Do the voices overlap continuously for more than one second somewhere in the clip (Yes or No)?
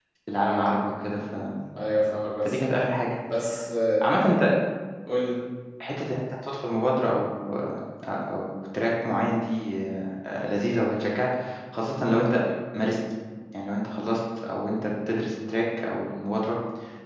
No